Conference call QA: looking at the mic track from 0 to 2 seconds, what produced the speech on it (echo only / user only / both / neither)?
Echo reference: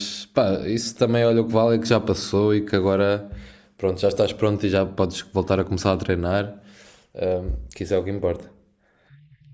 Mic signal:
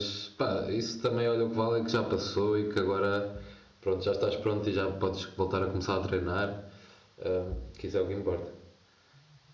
echo only